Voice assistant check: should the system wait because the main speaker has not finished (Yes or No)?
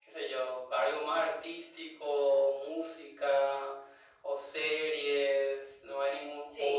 No